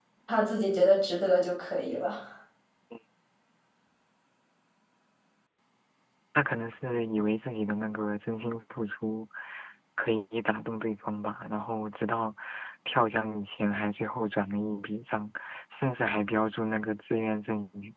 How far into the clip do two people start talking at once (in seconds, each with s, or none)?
none